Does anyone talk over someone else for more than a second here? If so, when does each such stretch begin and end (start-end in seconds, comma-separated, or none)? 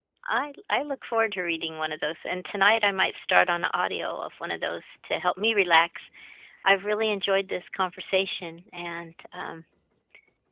none